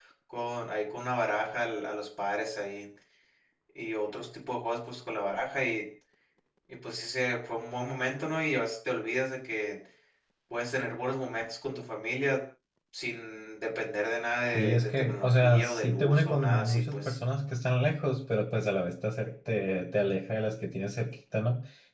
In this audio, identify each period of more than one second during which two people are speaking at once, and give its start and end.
14.5-17.2

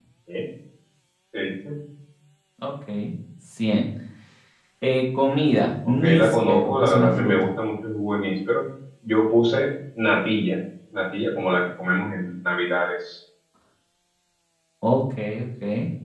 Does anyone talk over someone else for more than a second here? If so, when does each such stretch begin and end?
5.8-7.5

